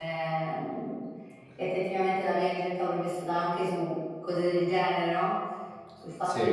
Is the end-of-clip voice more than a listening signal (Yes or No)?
No